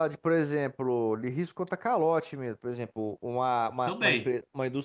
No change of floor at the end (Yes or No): Yes